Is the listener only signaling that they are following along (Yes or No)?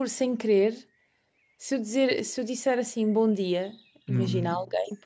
Yes